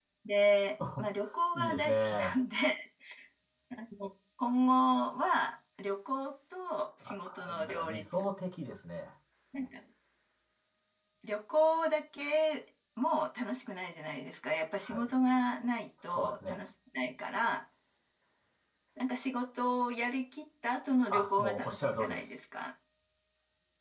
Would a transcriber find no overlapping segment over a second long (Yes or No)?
No